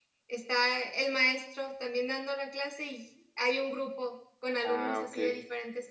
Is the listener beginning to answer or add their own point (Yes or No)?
No